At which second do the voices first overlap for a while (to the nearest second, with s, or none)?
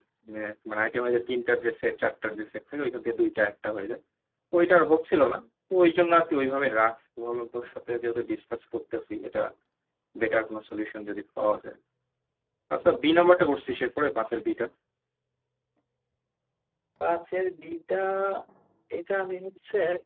none